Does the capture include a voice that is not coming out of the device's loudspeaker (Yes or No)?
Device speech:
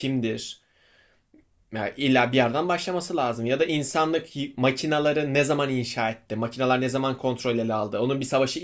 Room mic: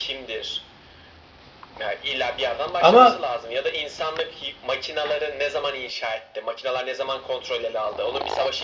Yes